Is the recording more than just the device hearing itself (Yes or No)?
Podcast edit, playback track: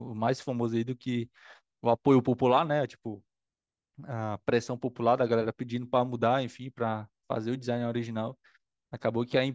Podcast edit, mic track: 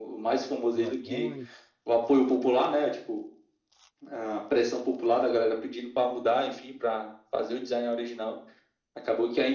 Yes